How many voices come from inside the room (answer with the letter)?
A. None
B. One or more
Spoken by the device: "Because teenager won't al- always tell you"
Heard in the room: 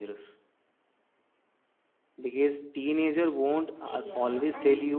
B